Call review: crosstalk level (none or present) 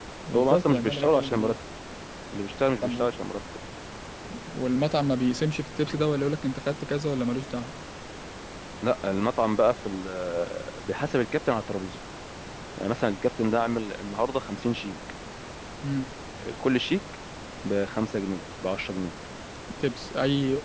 present